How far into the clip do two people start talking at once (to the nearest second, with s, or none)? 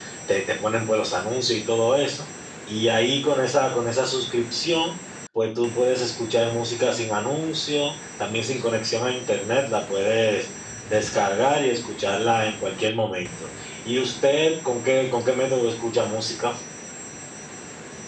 none